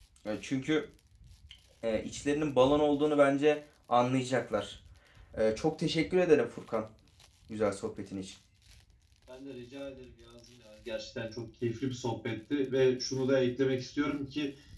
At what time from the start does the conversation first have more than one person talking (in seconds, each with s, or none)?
none